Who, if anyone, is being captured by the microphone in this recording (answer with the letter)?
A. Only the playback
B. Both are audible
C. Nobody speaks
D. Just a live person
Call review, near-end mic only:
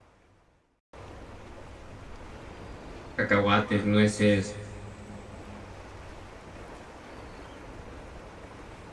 D